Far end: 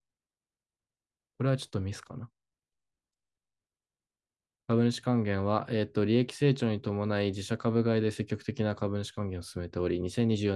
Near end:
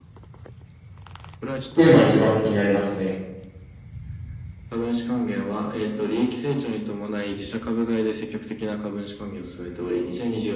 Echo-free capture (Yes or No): No